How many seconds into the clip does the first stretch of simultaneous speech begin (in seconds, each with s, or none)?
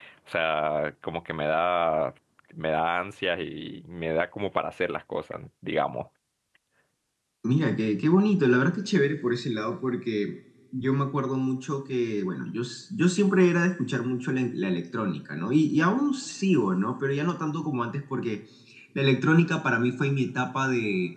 none